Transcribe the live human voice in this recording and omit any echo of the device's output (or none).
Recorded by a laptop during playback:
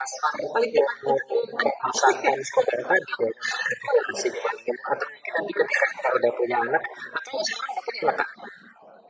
none